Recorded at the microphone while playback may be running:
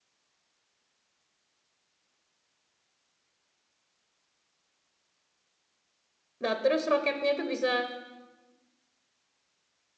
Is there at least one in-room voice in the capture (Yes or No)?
Yes